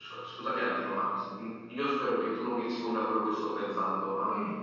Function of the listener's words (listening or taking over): listening